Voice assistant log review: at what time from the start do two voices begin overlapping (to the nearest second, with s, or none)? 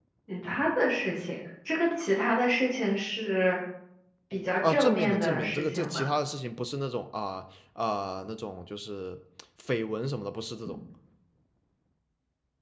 5 s